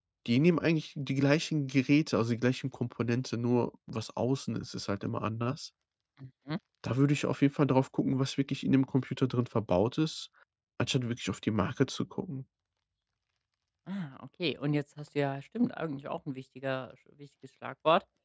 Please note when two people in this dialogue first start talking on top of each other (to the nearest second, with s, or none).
none